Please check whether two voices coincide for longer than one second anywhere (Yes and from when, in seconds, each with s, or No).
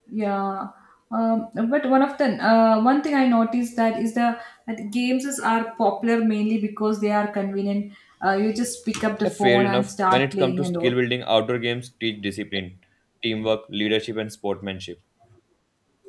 Yes, from 9.2 s